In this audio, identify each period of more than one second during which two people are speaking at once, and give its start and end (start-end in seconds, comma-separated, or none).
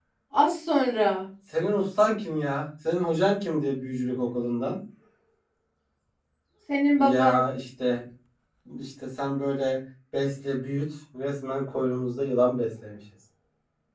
none